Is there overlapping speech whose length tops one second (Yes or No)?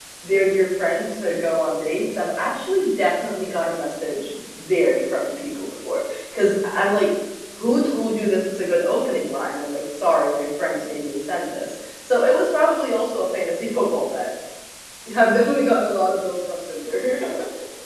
No